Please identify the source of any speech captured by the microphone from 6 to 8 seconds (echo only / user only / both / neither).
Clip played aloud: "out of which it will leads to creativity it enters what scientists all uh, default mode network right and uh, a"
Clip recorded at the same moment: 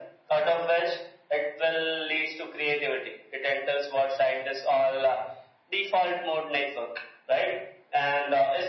echo only